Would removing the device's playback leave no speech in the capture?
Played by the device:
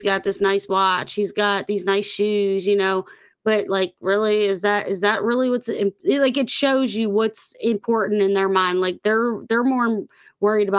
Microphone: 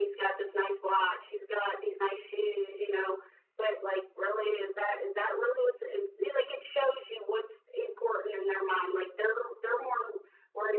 Yes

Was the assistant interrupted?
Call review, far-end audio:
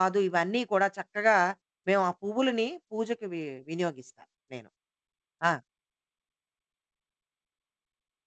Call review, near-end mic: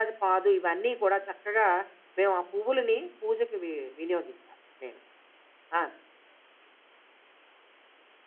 No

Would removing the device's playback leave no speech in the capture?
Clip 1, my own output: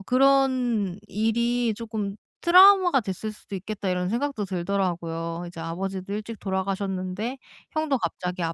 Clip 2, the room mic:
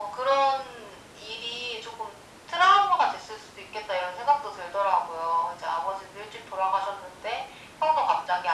Yes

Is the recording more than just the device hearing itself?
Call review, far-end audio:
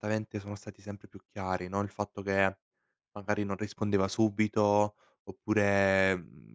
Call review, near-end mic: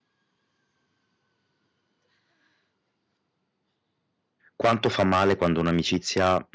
Yes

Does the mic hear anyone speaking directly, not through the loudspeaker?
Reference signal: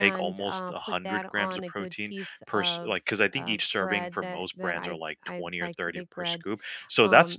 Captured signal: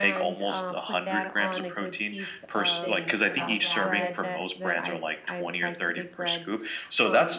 Yes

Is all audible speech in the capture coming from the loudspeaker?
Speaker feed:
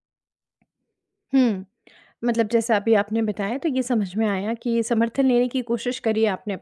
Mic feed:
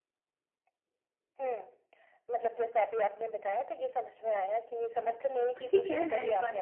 No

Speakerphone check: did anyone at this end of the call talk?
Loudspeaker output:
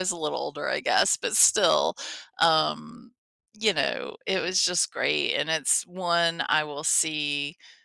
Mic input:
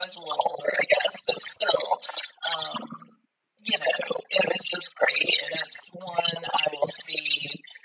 No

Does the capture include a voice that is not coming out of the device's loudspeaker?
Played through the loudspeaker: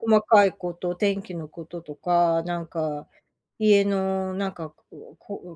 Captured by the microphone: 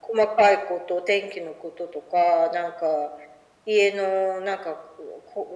No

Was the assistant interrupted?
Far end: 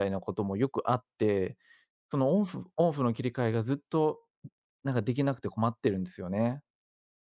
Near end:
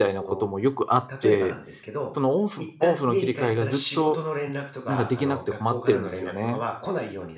Yes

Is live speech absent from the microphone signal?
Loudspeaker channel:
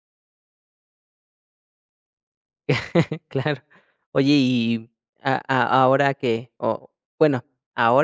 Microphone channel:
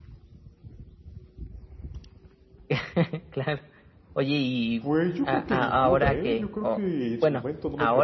No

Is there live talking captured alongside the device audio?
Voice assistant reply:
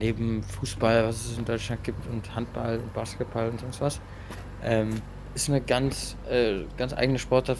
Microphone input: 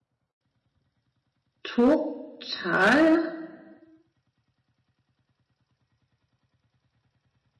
Yes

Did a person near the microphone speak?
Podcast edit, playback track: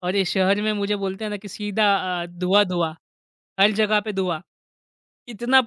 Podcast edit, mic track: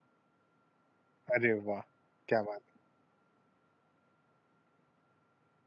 Yes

